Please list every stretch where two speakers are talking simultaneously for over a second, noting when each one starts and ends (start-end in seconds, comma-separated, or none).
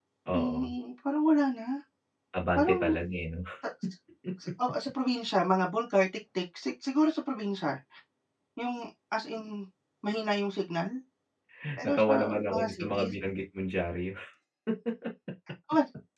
11.8-13.1